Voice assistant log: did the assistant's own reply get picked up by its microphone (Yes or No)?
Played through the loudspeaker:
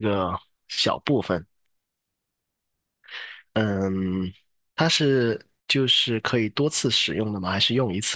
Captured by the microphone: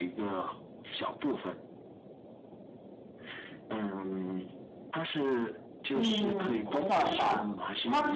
Yes